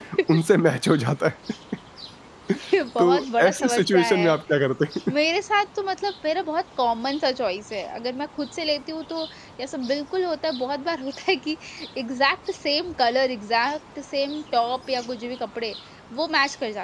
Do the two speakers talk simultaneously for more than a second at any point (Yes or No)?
Yes